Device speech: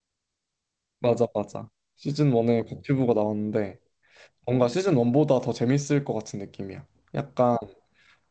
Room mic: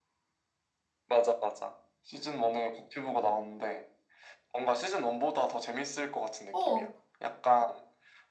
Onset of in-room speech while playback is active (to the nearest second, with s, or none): 7 s